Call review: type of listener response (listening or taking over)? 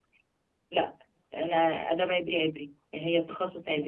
taking over